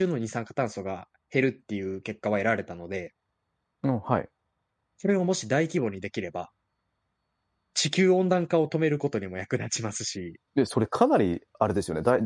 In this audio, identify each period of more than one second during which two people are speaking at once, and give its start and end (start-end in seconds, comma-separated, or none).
none